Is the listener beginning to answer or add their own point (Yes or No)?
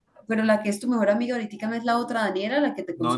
Yes